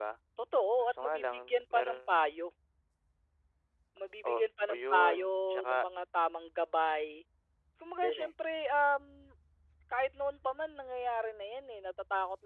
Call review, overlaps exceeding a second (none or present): present